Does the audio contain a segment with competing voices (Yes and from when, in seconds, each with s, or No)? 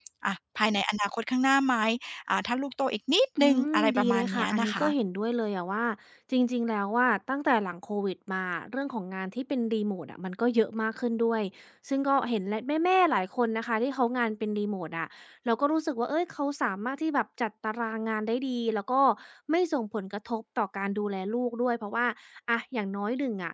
Yes, from 3.4 s